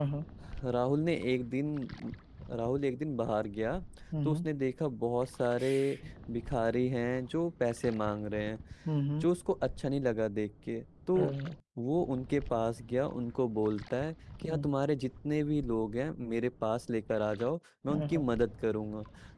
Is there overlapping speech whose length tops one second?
No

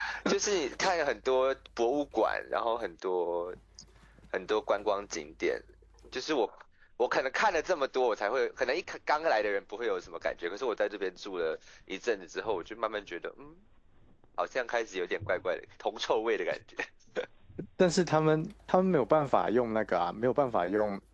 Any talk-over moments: No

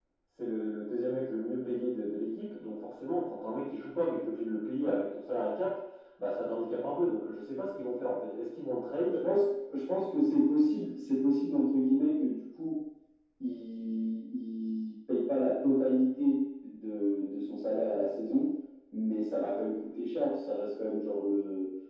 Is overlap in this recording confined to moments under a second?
Yes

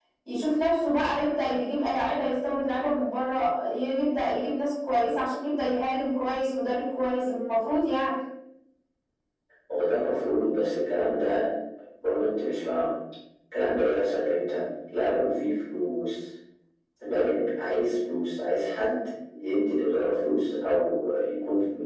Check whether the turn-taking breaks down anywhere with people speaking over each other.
No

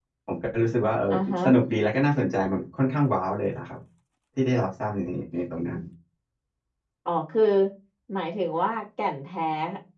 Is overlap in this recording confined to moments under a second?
Yes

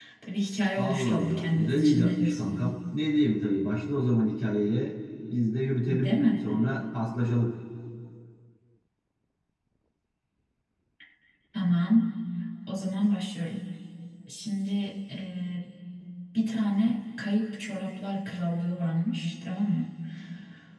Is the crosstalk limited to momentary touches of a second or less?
No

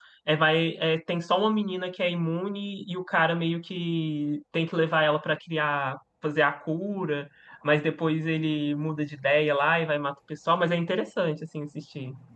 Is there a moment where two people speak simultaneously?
No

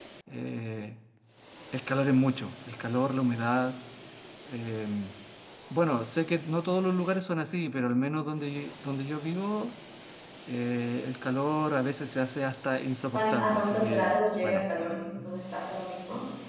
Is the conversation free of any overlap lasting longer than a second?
No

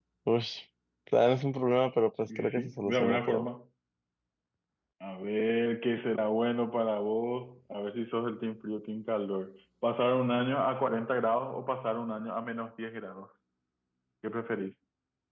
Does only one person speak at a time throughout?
No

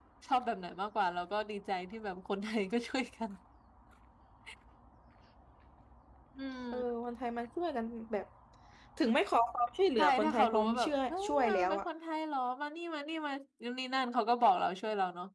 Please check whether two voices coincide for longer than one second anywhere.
Yes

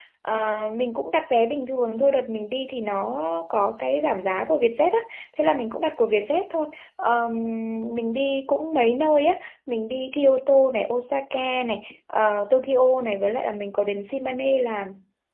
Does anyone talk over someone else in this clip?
No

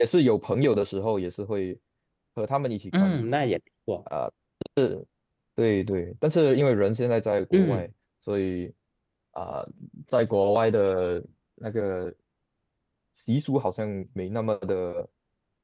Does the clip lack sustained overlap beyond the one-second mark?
Yes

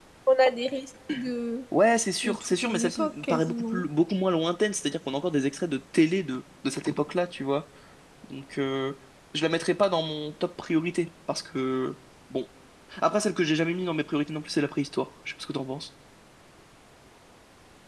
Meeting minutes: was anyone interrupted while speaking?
Yes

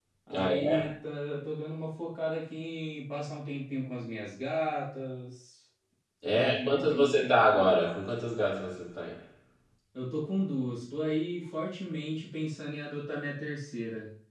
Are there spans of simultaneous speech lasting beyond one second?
Yes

